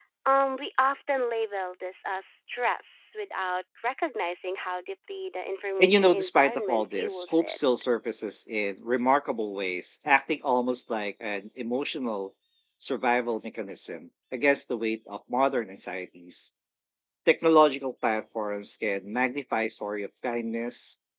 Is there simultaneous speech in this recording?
Yes, from 5.8 s

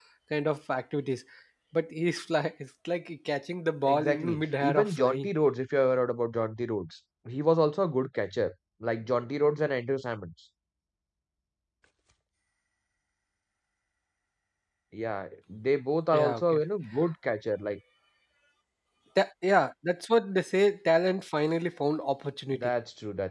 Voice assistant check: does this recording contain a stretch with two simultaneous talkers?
Yes, from 3.8 s

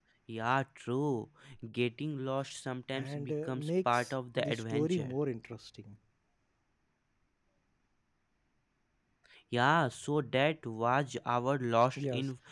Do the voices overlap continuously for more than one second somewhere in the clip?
Yes, from 3.0 s

